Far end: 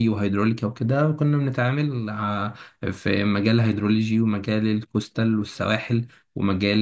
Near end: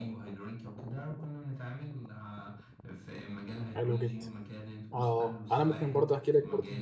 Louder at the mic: user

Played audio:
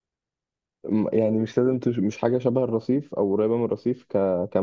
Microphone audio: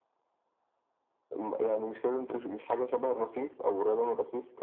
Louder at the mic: echo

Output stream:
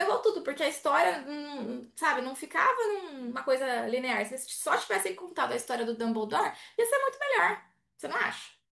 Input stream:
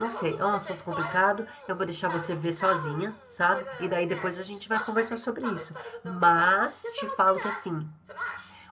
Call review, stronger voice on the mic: user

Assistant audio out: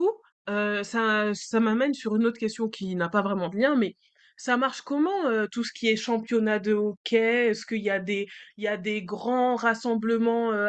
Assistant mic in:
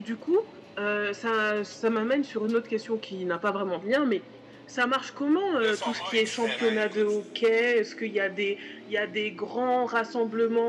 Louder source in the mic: echo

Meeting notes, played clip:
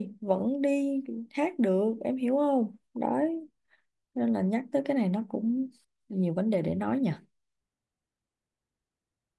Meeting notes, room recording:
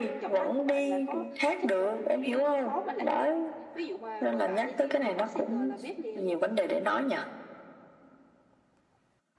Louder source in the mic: echo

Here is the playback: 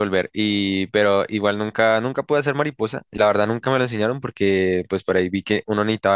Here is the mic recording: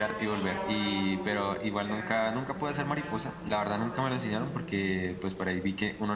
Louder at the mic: echo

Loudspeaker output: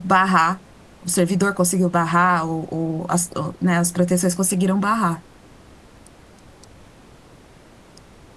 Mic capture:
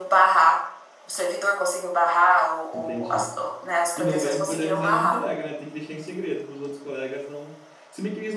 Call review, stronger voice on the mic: echo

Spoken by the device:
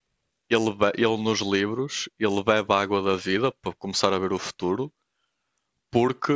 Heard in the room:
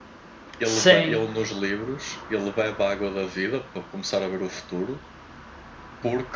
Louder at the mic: user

